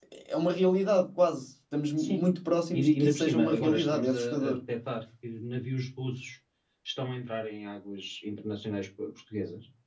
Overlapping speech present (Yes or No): Yes